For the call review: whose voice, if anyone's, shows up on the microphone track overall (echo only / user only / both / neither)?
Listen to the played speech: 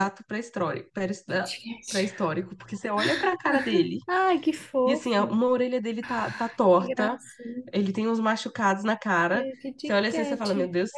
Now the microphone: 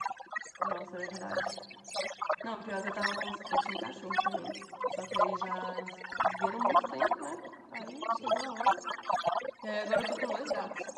both